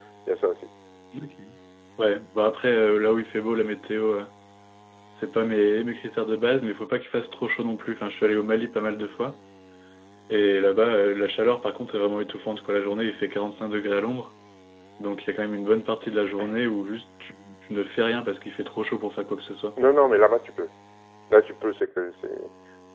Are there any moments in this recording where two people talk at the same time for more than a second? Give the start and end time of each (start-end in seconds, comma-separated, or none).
none